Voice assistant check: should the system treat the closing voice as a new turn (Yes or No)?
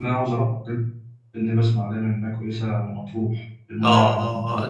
Yes